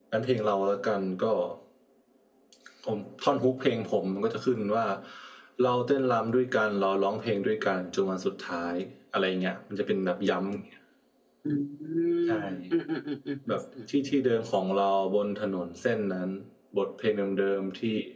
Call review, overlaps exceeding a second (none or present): none